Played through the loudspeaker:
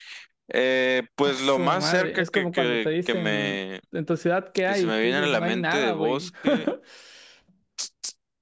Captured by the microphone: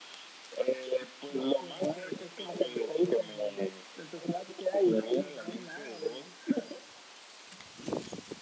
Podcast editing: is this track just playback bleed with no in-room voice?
Yes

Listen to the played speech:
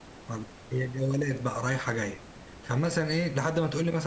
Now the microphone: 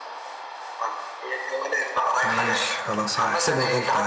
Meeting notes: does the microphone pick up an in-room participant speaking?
Yes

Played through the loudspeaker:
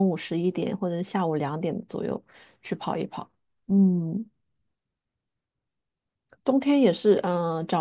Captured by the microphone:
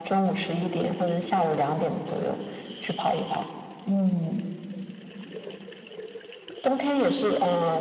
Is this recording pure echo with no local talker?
Yes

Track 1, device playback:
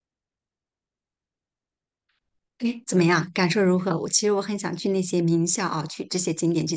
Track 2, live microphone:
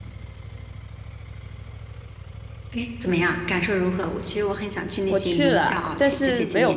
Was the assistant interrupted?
Yes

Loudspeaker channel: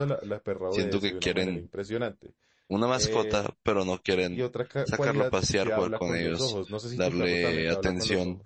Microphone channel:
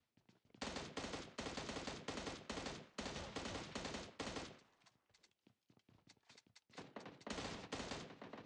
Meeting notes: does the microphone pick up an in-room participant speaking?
No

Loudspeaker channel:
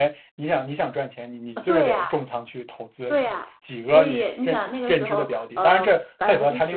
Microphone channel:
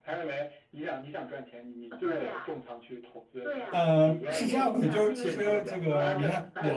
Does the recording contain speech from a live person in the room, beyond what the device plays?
Yes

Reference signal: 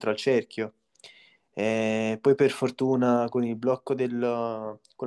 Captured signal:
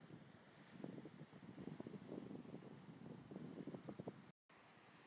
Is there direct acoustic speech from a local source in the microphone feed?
No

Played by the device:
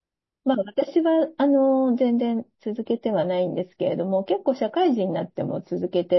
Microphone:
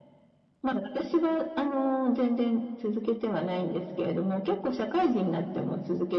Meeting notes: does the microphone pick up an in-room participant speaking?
No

